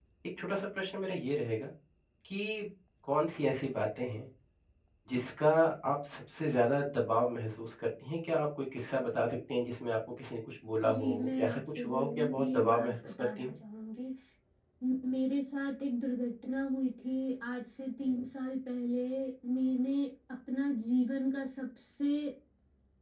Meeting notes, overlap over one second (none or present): present